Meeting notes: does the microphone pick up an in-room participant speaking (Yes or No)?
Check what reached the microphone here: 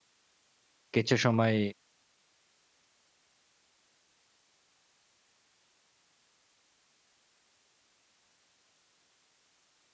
Yes